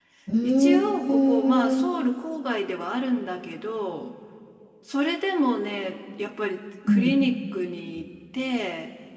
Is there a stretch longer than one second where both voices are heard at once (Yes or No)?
Yes